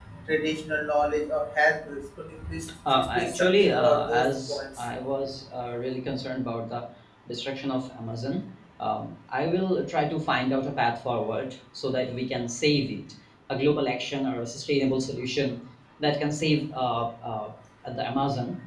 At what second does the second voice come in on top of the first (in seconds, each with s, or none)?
2.8 s